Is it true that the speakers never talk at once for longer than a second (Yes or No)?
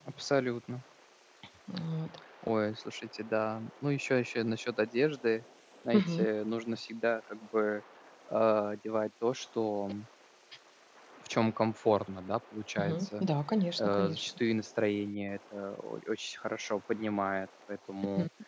Yes